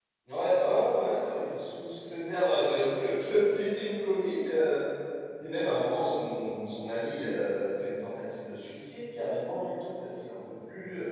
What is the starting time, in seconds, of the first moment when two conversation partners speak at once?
none

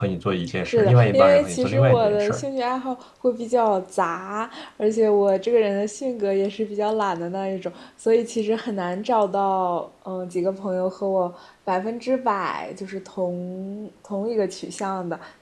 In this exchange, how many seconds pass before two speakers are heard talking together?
0.7 s

